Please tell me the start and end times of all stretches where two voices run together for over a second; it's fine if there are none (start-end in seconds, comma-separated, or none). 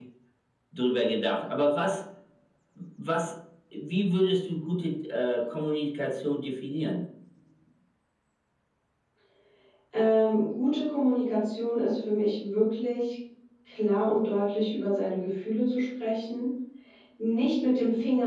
none